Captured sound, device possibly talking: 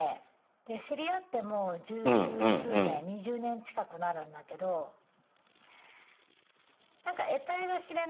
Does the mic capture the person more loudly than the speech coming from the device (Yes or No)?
Yes